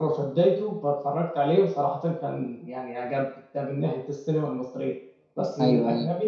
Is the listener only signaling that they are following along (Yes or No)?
Yes